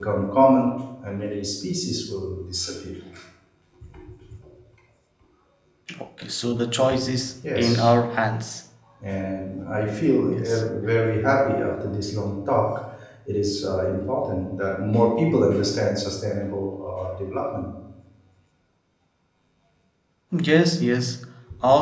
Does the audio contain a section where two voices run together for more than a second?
No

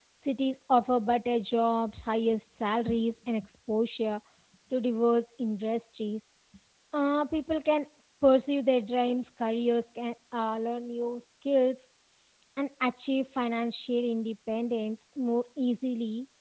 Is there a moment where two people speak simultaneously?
No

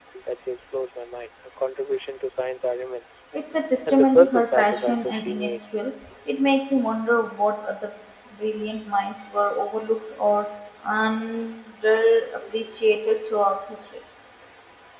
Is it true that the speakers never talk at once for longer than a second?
No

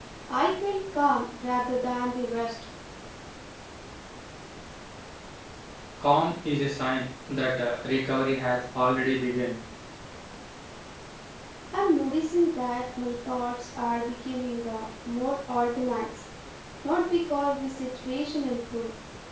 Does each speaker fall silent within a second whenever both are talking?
Yes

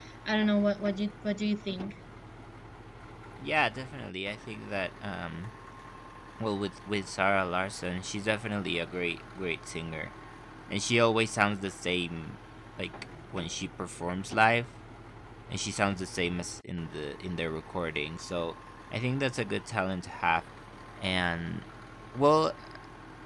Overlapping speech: No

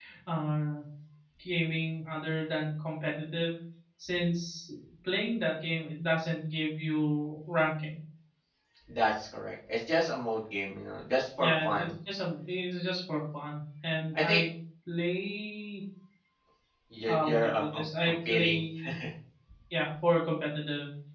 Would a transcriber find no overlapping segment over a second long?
No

